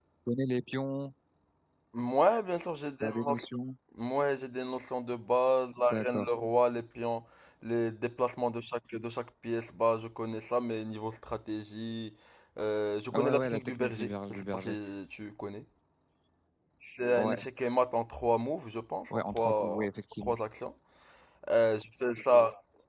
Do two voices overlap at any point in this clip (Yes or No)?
Yes